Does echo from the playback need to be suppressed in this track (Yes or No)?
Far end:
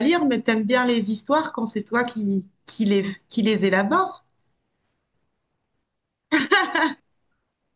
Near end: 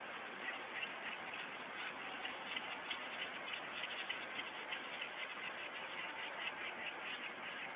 No